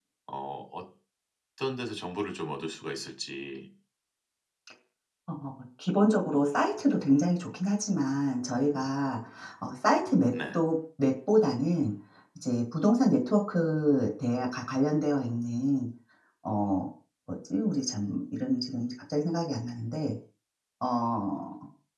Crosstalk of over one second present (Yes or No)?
No